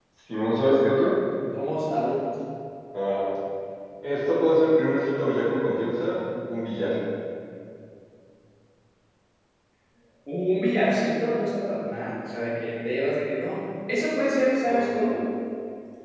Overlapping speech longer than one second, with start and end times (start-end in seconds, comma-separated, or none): none